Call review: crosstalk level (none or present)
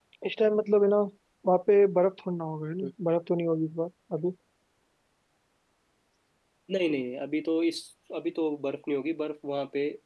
none